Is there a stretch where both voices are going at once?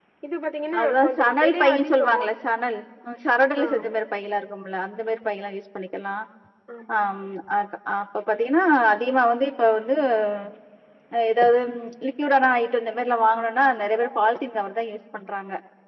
Yes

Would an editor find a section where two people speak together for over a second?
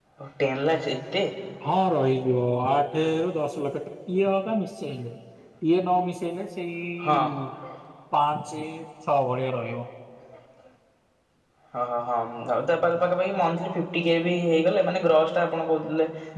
No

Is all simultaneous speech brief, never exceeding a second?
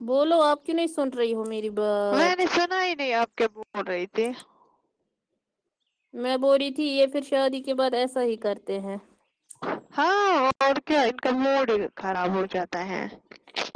Yes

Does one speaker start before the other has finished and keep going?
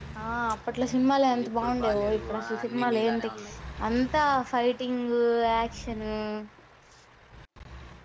Yes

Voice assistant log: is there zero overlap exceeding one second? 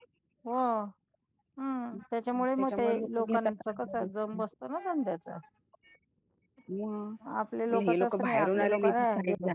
No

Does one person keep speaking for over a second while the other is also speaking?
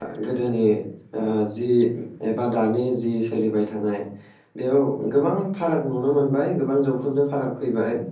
No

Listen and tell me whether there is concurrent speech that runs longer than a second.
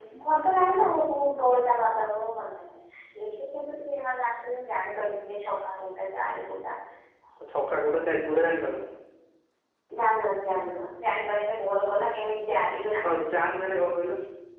No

